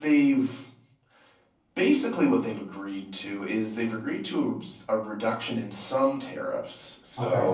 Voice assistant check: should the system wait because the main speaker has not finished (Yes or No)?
Yes